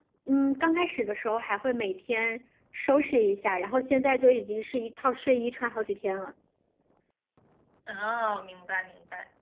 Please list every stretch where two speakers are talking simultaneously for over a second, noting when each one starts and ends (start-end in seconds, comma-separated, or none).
none